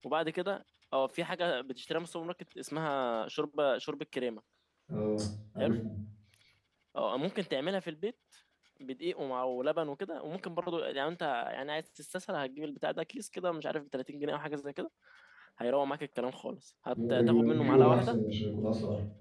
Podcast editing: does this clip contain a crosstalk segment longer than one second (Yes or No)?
Yes